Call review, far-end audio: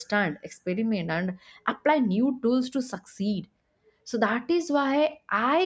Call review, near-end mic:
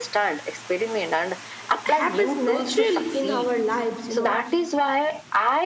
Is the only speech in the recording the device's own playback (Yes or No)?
No